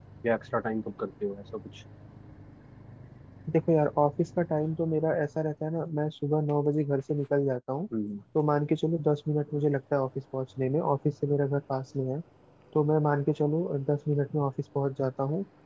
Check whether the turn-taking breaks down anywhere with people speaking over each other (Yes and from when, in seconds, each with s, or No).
No